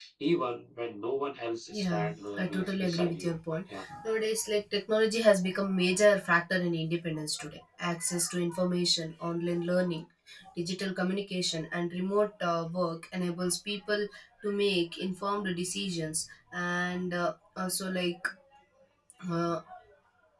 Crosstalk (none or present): present